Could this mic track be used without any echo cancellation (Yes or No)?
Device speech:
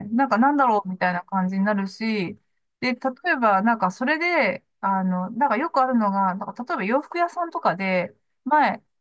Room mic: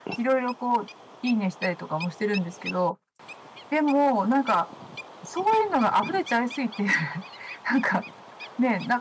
Yes